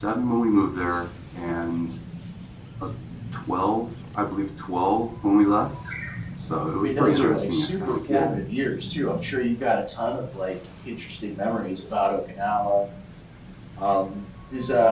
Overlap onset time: 6.8 s

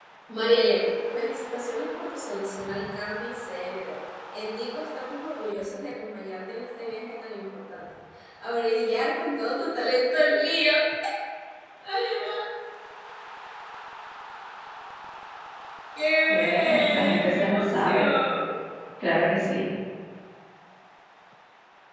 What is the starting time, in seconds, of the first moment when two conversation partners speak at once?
16.3 s

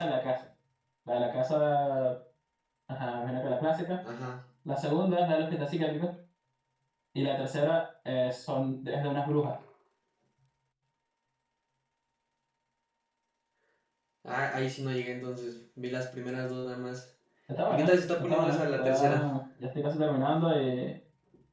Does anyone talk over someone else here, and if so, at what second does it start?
17.7 s

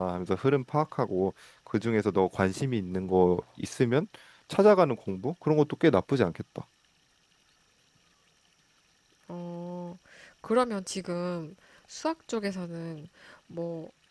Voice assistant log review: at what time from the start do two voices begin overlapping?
none

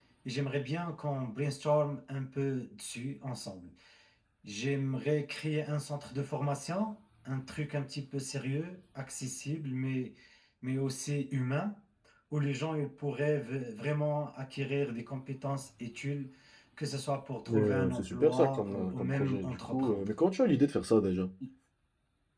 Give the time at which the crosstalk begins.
17.5 s

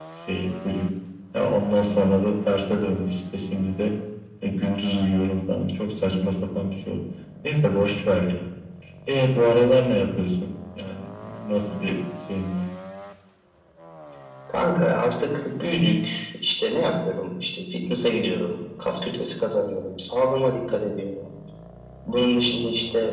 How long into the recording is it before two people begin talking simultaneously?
none

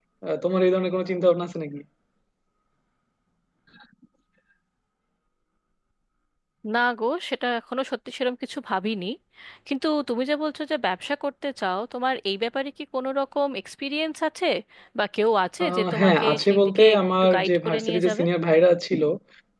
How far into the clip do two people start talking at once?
15.6 s

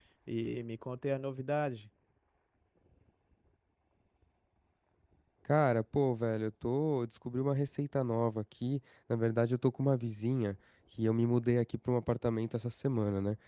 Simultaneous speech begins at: none

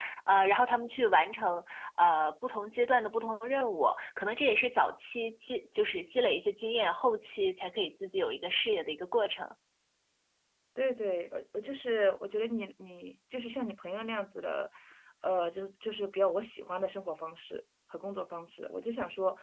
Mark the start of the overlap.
none

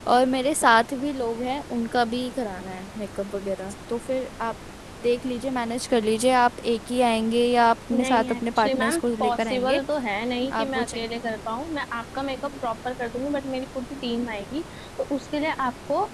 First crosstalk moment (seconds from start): 7.9 s

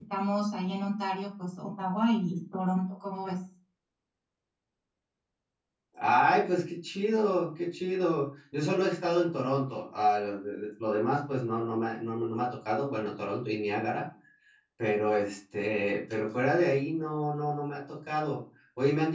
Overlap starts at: none

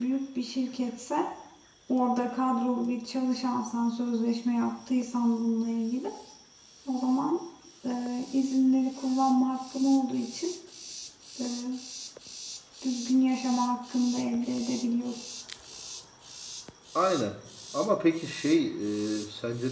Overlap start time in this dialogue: none

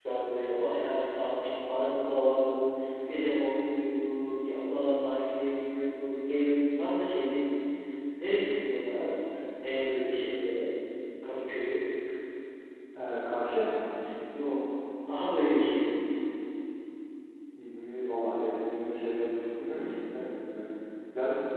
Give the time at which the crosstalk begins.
none

